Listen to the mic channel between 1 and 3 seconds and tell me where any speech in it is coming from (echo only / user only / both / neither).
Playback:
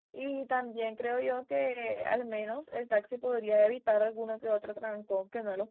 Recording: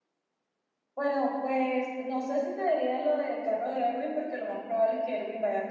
user only